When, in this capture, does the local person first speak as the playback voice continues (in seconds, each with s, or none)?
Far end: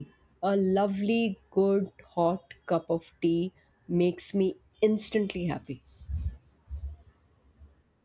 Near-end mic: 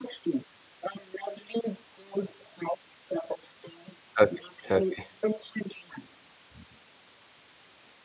4.2 s